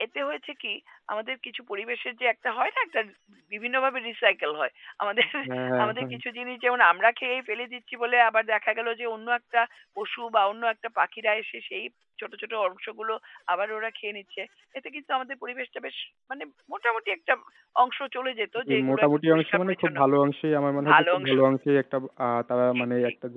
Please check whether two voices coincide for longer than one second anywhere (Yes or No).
Yes